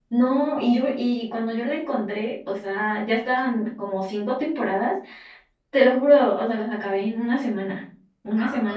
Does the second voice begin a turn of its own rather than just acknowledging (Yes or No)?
No